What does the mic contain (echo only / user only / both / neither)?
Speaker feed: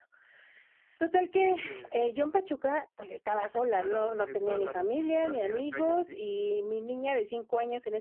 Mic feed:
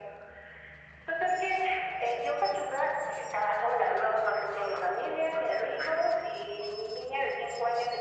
echo only